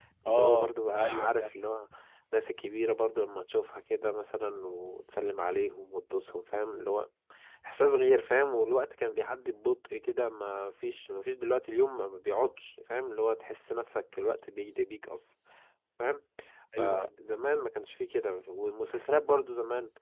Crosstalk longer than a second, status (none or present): present